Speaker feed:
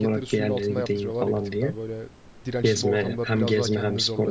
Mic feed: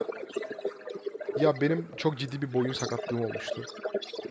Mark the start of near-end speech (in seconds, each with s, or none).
1.3 s